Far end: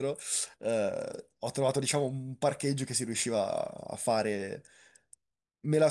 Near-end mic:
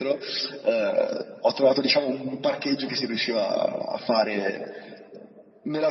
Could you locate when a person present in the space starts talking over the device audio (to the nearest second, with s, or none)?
none